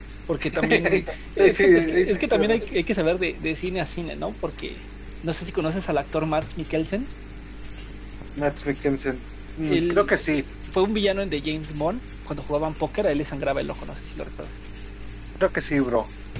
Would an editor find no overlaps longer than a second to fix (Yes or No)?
No